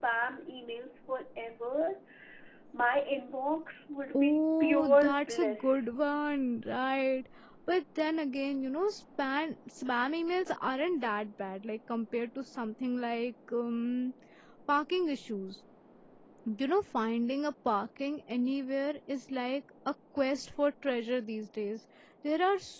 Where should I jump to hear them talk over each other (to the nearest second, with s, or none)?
4 s